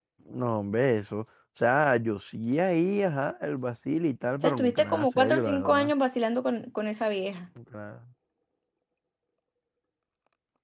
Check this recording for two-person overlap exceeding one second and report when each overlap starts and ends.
4.4-5.9

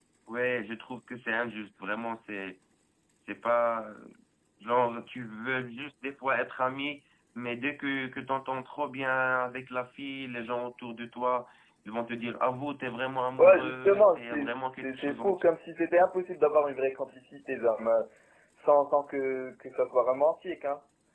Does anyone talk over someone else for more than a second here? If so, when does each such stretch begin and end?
13.4-15.4

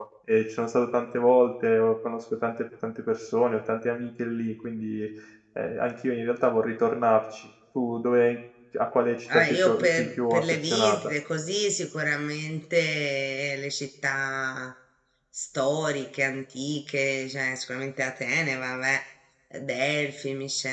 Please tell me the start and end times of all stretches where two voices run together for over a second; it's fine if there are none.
9.3-11.0

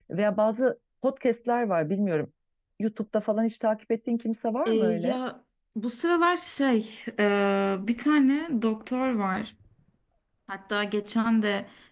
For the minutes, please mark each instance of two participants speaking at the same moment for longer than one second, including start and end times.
none

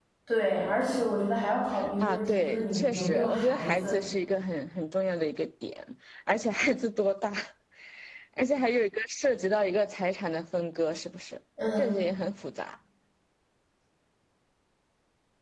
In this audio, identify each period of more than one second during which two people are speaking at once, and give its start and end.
2.0-4.0

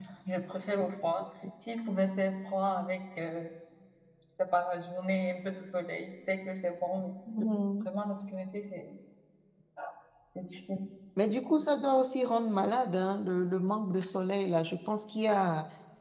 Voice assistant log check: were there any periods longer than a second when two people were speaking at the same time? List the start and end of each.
none

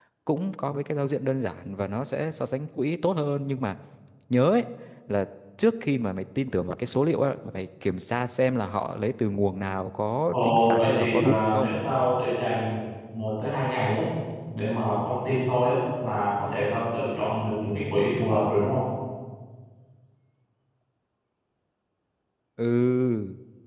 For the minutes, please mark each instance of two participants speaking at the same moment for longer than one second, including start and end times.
10.3-11.7

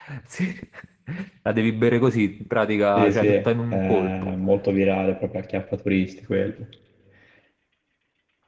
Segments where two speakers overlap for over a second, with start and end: 3.0-4.3

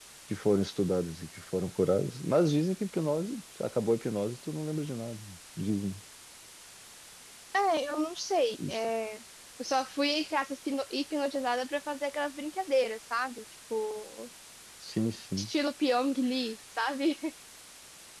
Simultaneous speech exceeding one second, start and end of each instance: none

